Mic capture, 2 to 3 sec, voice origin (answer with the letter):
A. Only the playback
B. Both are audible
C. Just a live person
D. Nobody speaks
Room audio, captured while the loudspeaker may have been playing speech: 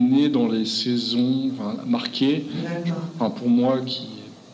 B